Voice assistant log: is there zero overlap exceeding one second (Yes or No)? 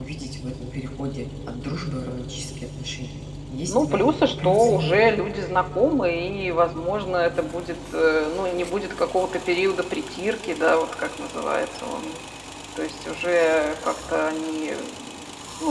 No